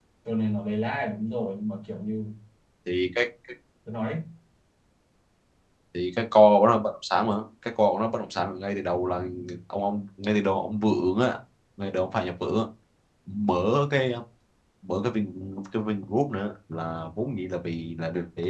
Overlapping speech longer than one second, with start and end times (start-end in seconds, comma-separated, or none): none